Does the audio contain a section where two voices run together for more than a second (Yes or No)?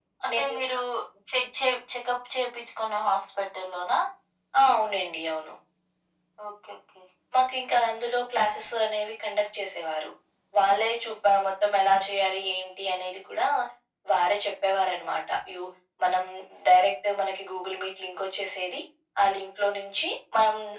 No